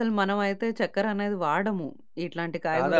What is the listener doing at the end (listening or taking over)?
taking over